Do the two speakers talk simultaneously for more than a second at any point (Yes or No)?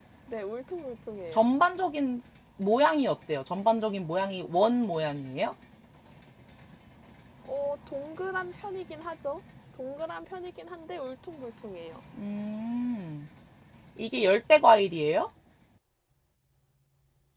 No